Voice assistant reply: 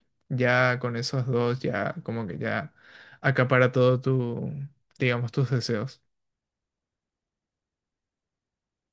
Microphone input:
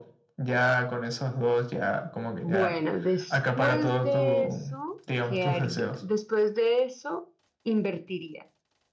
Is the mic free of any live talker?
No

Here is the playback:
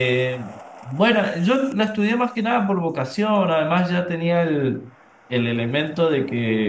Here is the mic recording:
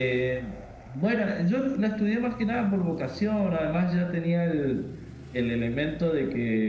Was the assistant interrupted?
No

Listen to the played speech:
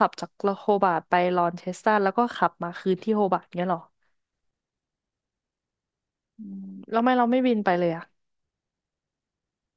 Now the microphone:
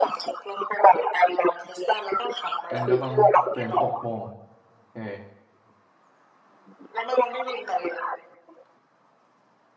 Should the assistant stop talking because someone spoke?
Yes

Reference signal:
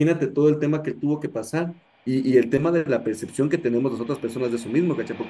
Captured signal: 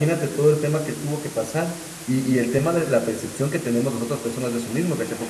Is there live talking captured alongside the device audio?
No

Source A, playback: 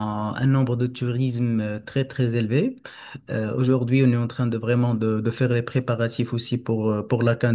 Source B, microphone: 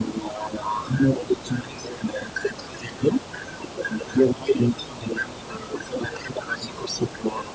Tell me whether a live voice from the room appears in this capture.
No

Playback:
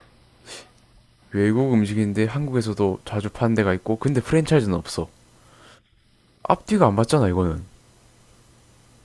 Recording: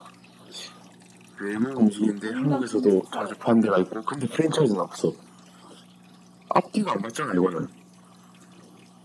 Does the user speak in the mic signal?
Yes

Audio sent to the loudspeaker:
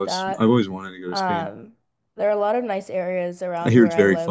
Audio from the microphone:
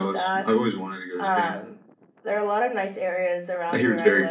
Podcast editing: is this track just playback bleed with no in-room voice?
Yes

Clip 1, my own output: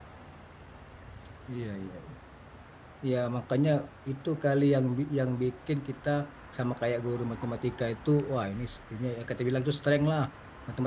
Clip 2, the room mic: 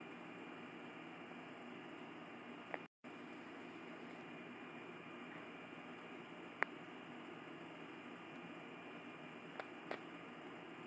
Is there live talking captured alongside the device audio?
No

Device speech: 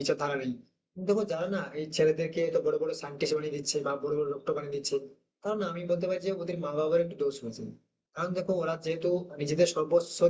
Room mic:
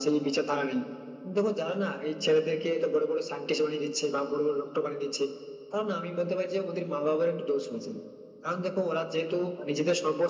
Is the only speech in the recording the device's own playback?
Yes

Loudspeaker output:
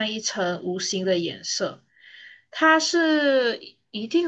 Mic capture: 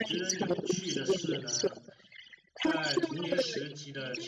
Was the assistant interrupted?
Yes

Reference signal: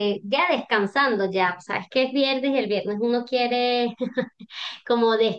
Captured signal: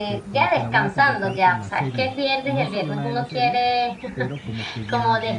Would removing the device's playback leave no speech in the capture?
No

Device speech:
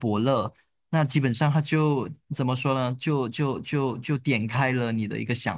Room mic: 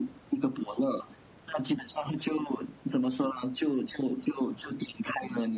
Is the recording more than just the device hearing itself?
No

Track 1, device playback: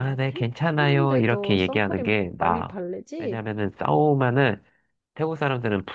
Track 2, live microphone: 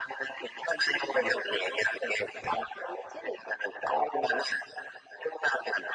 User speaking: No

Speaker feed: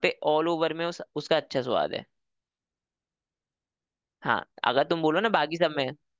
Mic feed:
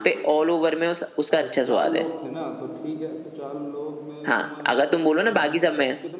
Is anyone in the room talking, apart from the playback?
Yes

